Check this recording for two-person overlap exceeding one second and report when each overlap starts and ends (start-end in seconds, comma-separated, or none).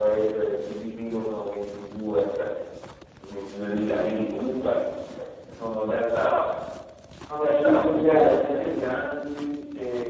7.4-8.6